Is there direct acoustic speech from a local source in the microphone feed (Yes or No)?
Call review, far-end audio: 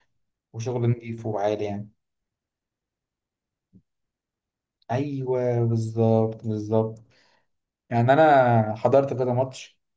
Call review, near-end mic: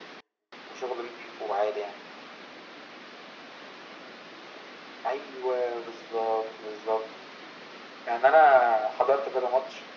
No